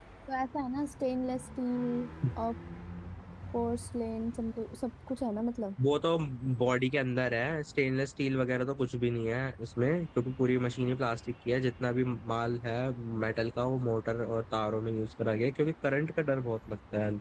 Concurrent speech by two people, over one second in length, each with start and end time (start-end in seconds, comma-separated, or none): none